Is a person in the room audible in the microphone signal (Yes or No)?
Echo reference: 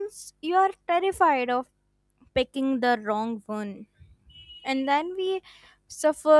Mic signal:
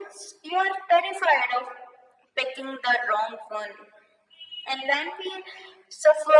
No